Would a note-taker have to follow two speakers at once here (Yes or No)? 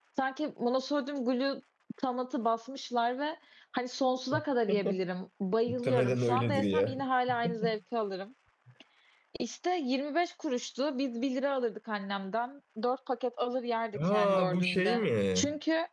Yes